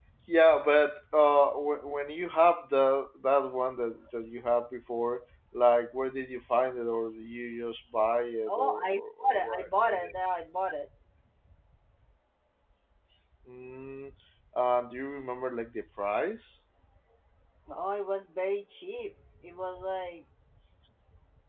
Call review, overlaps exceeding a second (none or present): present